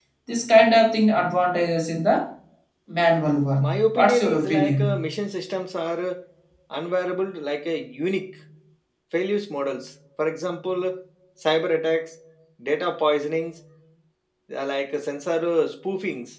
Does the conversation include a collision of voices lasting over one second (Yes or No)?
Yes